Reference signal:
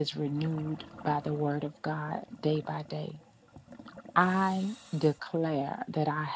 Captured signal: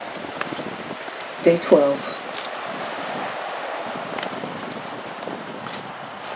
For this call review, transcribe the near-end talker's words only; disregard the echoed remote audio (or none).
Day twelve.